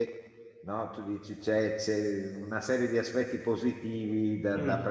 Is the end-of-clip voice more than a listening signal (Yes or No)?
No